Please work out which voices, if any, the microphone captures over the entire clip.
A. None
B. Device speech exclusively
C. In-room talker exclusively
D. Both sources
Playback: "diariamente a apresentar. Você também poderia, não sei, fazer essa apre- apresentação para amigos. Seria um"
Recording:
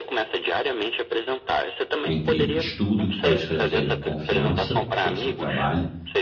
D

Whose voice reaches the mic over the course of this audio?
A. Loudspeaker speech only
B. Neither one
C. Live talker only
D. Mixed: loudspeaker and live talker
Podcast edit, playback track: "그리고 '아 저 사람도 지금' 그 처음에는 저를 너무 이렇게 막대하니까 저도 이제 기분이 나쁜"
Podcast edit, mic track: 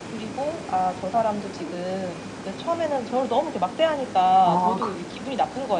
D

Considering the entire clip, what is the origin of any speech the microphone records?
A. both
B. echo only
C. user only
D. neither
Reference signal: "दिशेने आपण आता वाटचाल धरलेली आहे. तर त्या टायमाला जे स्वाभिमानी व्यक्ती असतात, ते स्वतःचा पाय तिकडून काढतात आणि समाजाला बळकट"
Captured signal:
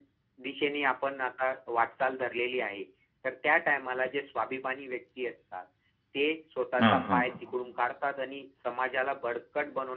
A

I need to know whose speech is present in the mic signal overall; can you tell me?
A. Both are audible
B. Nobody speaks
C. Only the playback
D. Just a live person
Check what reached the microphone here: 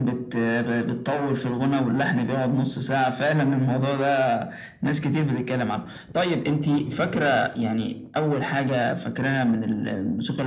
C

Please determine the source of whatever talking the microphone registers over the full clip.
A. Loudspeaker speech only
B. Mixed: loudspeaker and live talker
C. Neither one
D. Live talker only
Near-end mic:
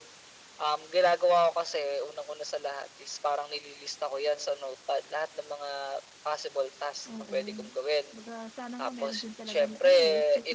B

